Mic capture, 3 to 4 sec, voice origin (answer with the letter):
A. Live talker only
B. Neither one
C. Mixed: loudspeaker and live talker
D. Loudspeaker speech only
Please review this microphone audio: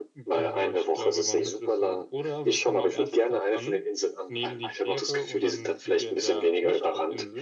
C